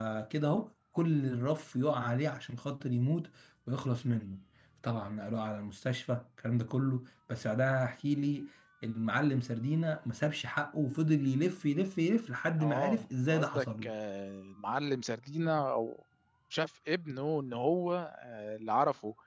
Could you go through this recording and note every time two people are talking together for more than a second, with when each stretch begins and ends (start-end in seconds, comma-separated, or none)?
12.6-13.9